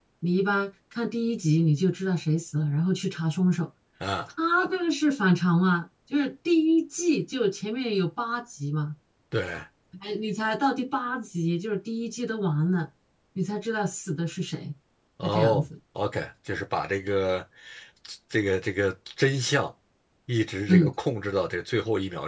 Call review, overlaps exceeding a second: none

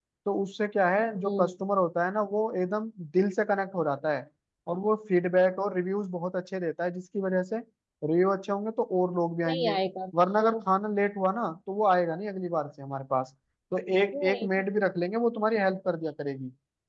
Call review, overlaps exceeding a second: none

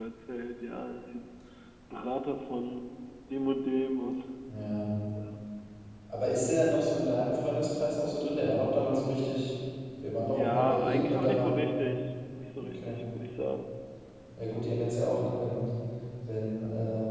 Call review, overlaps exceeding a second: present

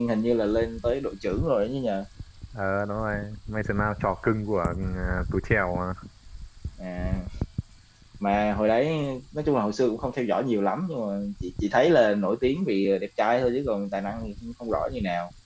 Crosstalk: none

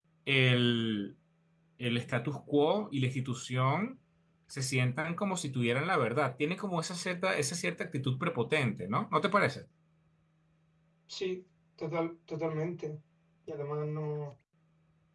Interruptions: none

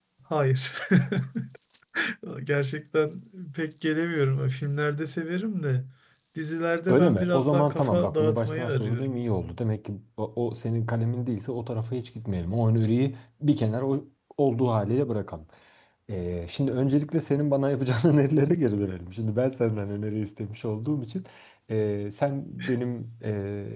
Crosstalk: present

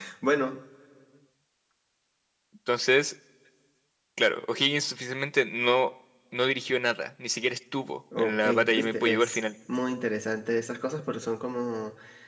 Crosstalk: present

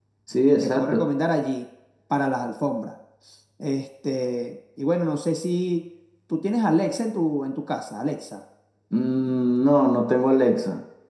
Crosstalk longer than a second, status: none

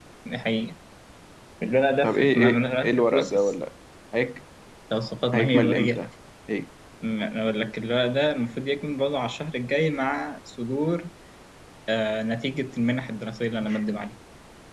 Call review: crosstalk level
present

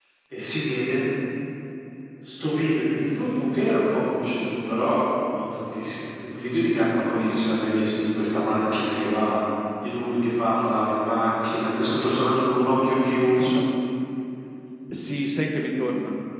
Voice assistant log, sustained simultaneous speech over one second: none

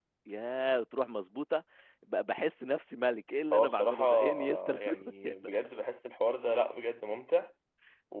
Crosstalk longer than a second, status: present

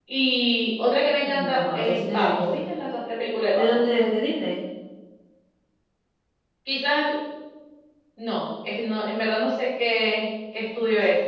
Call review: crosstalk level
present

